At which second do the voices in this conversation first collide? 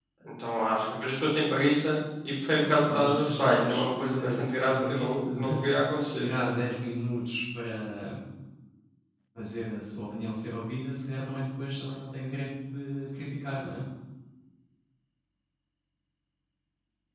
2.6 s

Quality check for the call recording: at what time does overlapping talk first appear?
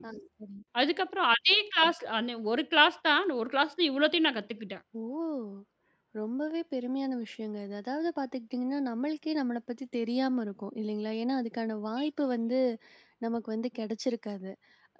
none

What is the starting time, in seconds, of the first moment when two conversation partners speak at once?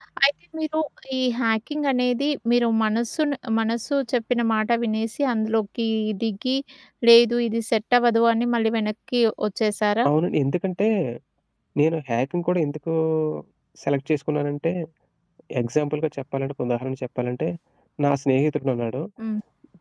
none

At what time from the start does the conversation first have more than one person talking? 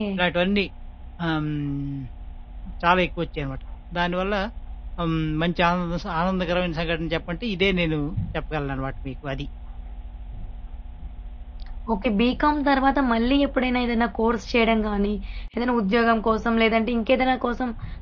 none

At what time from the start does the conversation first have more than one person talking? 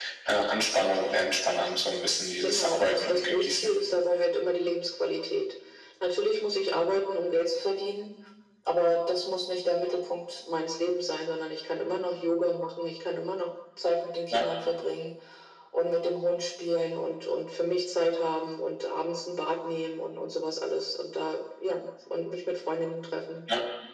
2.4 s

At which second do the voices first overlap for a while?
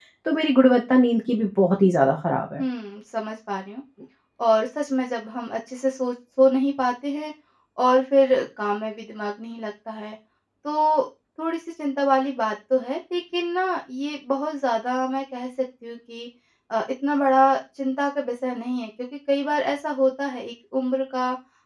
none

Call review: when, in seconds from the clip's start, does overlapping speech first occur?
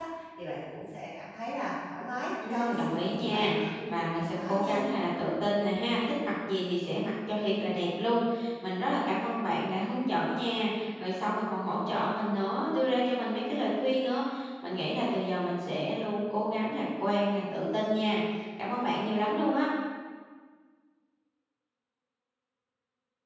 2.4 s

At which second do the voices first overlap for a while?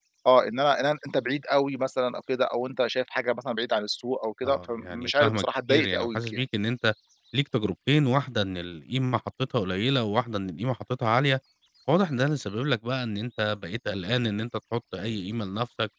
4.4 s

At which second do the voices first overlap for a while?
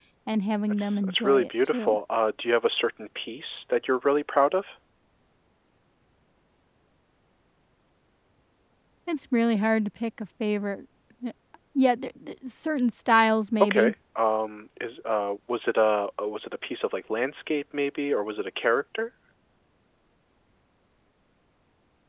0.7 s

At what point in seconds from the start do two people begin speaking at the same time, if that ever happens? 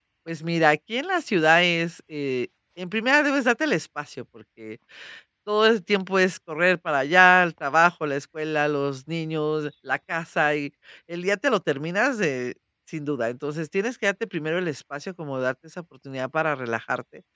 none

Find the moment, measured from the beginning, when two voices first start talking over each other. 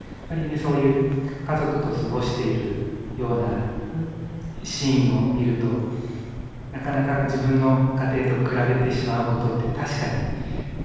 none

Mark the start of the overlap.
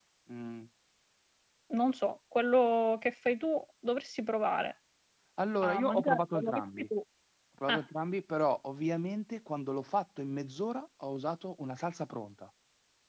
5.6 s

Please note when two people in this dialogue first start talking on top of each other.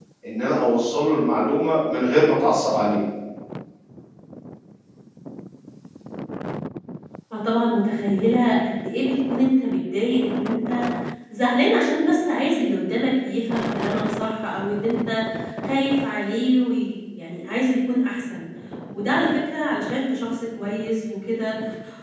none

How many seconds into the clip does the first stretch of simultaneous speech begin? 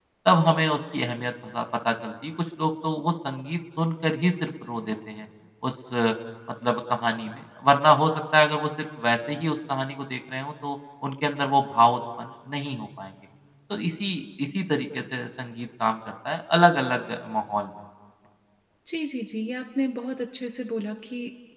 none

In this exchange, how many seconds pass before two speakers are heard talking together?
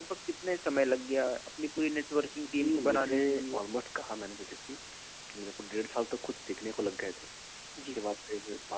2.4 s

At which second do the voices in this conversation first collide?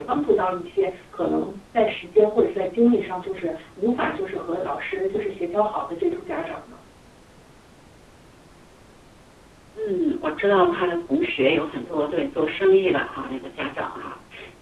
none

